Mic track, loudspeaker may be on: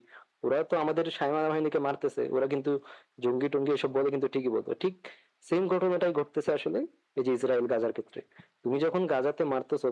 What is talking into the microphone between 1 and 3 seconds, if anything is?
echo only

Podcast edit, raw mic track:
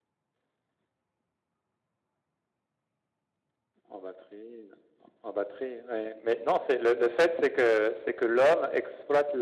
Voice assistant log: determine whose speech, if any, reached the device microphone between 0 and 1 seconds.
neither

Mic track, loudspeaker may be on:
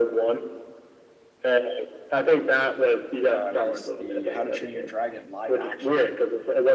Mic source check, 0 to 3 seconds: echo only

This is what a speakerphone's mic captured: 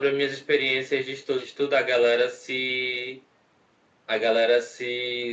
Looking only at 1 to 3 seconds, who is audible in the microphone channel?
echo only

